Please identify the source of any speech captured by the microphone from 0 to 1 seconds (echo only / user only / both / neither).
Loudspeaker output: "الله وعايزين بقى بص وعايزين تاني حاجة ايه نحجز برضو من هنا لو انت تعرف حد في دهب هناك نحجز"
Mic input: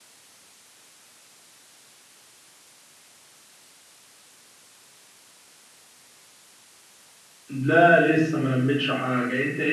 neither